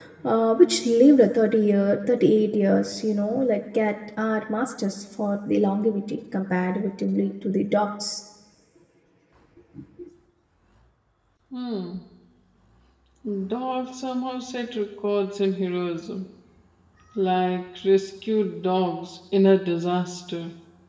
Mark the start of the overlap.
none

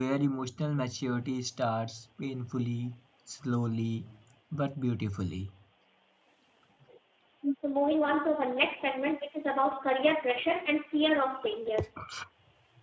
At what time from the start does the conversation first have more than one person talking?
none

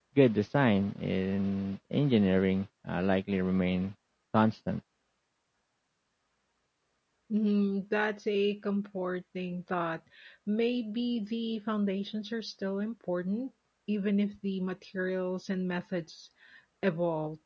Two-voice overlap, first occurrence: none

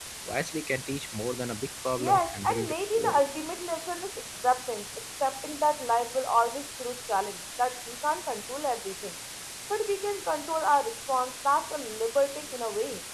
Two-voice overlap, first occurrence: 2 s

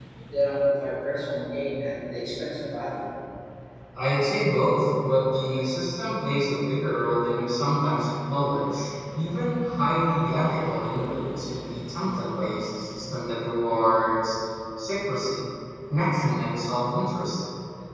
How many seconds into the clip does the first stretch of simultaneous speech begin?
none

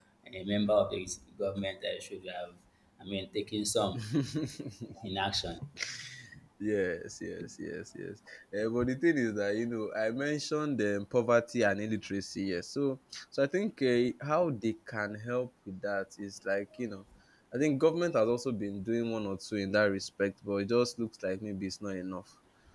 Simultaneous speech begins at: none

